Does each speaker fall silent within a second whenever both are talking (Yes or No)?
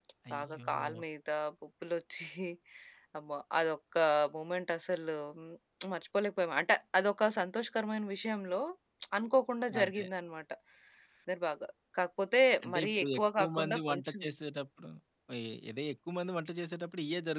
No